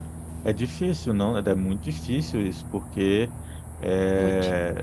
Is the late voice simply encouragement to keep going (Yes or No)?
Yes